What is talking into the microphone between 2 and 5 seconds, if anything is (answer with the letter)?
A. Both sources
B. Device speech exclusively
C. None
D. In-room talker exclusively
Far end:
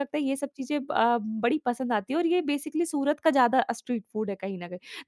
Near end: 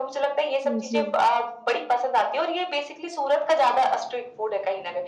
B